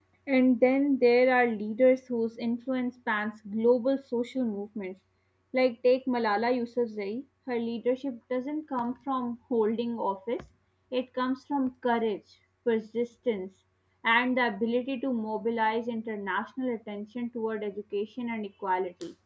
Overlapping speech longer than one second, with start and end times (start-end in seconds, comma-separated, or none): none